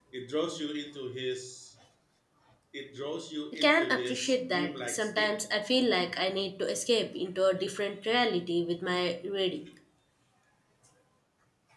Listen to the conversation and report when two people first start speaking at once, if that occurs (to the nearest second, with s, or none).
4 s